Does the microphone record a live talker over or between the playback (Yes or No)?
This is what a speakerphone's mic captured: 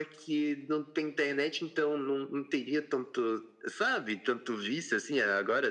No